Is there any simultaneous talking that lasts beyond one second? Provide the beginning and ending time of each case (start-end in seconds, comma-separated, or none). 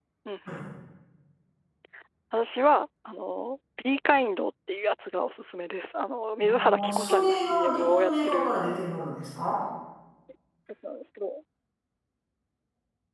6.4-8.6